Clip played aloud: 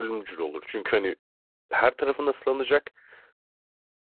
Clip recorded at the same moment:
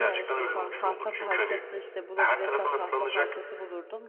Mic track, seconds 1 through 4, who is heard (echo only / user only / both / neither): both